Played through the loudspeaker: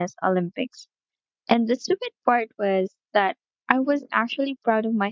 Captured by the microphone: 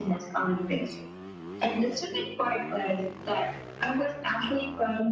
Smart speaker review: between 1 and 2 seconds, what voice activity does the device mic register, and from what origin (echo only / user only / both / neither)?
echo only